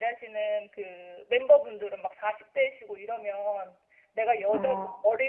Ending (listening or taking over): listening